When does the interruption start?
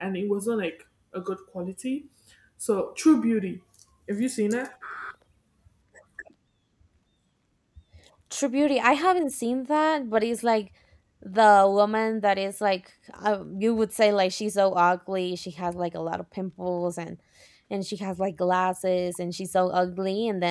none

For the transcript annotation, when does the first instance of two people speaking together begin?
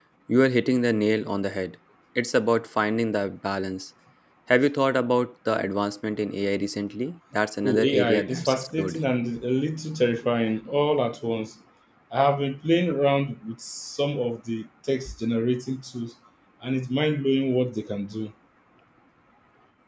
7.6 s

